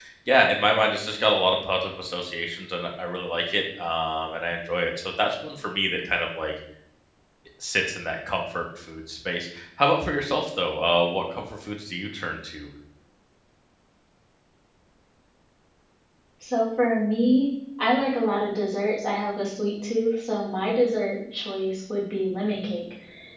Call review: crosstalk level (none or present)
none